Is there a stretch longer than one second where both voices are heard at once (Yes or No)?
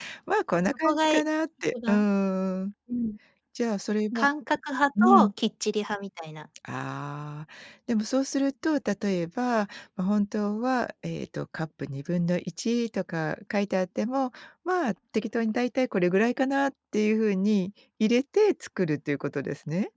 No